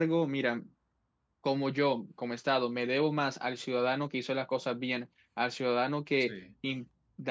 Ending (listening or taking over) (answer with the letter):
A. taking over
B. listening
B